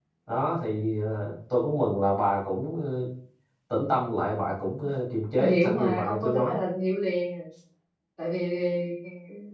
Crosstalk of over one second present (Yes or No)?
Yes